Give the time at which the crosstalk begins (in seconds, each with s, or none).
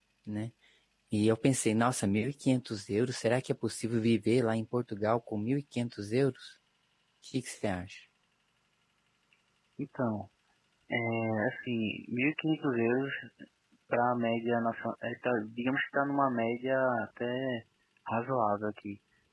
none